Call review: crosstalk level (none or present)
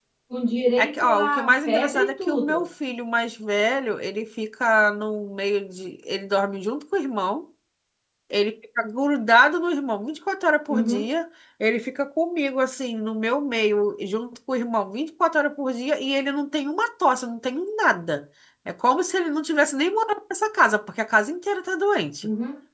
present